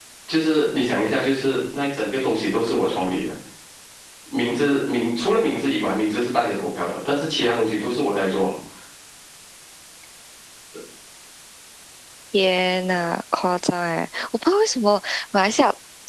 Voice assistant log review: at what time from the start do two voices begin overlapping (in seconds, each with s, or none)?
none